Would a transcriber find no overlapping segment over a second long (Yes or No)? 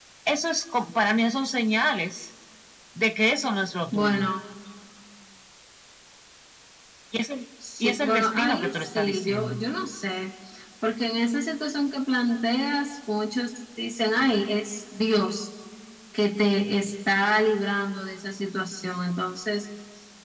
No